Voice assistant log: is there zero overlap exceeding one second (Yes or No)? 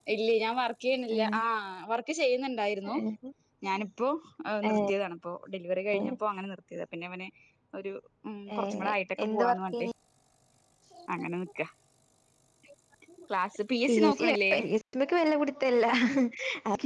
No